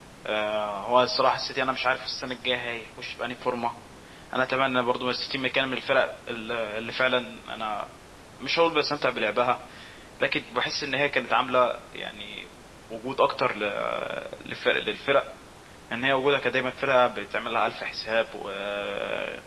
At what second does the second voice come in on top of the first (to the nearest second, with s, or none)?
none